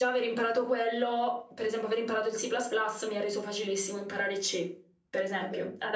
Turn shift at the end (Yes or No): No